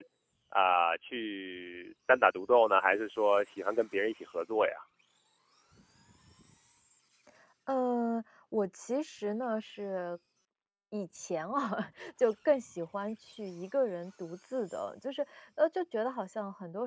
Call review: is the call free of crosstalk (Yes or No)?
Yes